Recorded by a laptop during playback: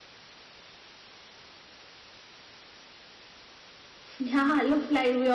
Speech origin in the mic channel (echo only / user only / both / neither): user only